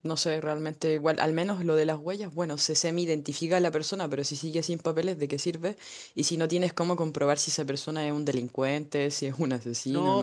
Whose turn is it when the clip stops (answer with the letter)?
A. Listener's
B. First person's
A